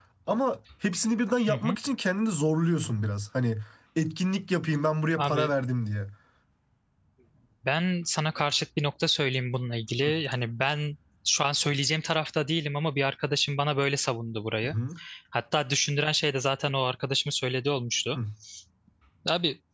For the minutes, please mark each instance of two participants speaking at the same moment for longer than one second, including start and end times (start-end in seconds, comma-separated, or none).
none